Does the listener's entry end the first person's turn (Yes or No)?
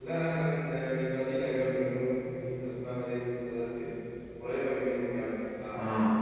Yes